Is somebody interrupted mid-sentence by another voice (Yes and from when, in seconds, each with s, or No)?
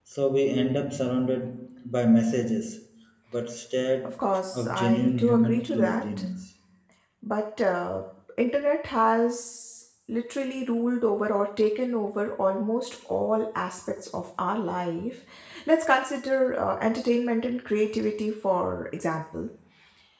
Yes, from 4.2 s